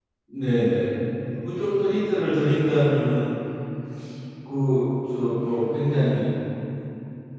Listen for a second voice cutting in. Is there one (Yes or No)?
No